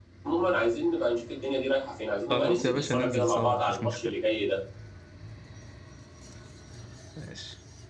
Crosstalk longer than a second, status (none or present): present